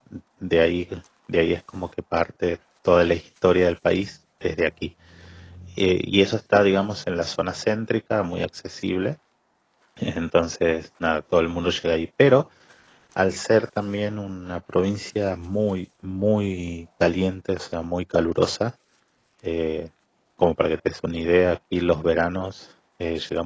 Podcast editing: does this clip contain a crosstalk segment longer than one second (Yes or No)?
No